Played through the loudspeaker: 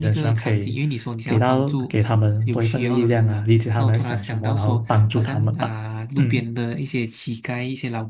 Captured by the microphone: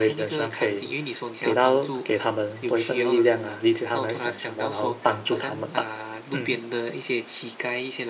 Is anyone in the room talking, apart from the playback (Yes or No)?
No